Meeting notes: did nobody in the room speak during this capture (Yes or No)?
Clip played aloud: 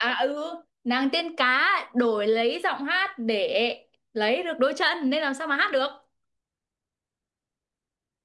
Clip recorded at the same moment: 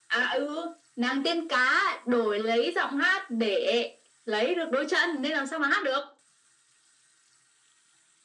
Yes